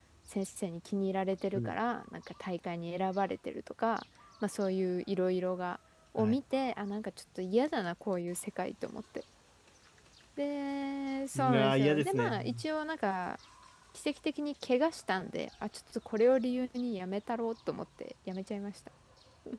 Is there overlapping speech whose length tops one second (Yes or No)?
Yes